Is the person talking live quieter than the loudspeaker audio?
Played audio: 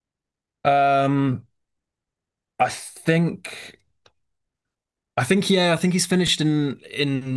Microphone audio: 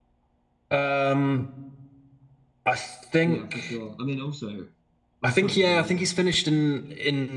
Yes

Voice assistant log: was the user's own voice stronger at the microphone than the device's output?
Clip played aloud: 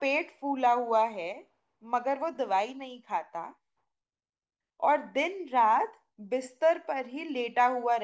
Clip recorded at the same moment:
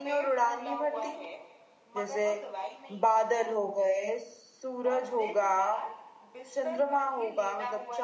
Yes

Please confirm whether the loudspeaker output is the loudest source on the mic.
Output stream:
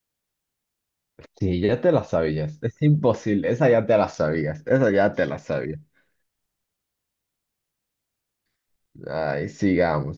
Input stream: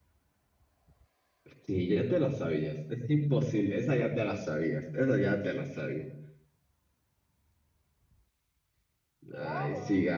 Yes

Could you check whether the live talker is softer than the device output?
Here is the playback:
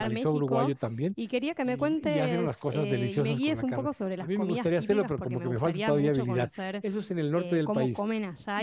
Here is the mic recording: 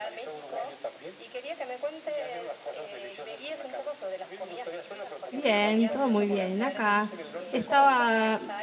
No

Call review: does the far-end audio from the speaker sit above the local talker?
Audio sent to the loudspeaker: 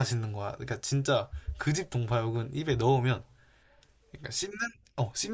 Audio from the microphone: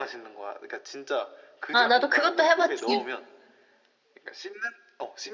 No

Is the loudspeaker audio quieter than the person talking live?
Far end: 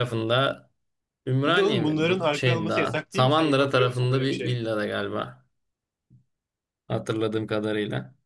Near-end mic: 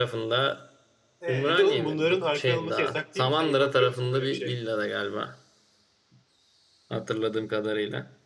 No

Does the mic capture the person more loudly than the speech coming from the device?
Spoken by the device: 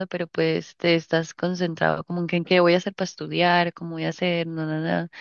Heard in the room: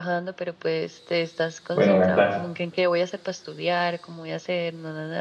Yes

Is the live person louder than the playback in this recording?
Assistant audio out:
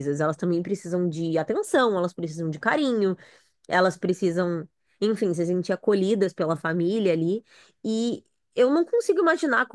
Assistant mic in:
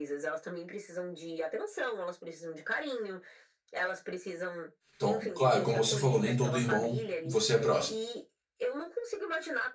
Yes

